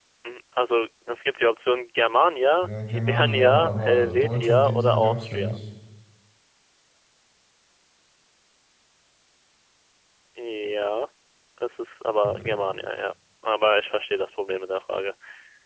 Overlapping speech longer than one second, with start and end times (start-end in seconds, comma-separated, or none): 2.6-5.6